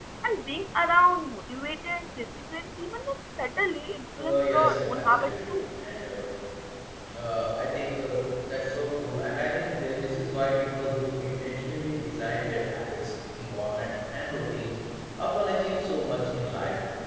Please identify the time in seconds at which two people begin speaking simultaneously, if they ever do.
4 s

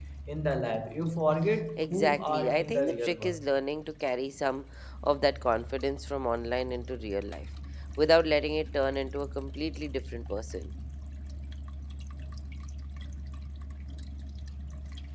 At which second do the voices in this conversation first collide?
2 s

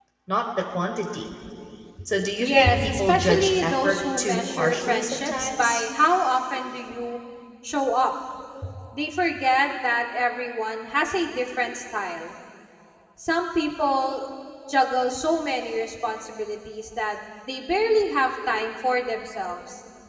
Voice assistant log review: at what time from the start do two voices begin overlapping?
2 s

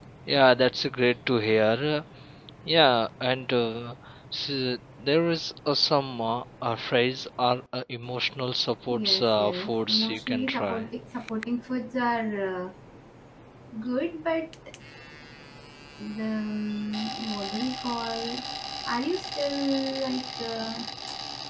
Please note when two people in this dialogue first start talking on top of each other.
9 s

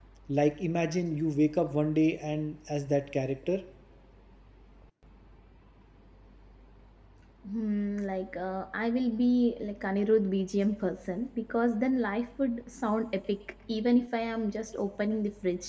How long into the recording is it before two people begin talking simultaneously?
none

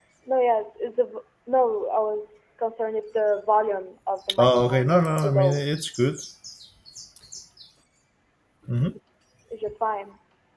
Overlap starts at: 4 s

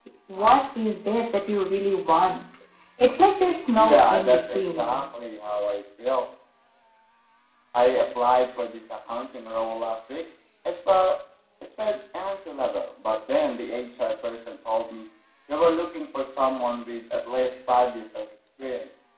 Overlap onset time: 4 s

